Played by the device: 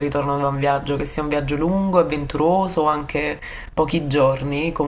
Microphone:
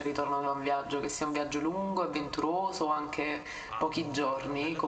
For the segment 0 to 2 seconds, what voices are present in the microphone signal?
echo only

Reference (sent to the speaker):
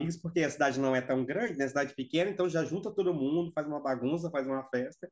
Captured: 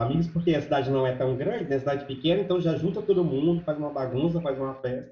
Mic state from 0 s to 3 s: echo only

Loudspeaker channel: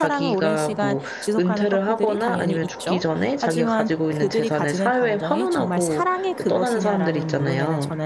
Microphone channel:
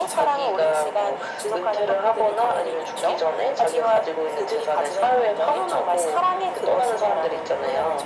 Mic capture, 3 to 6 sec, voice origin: echo only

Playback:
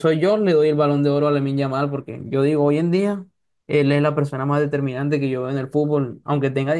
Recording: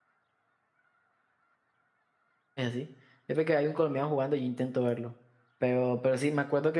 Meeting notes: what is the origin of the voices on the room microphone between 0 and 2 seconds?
neither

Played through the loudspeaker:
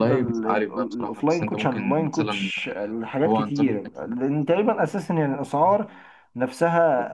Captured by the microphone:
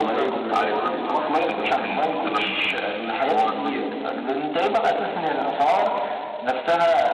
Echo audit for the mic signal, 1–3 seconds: both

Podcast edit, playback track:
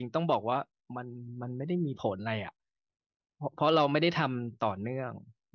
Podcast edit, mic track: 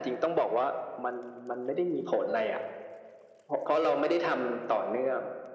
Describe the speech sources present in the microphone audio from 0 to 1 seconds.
echo only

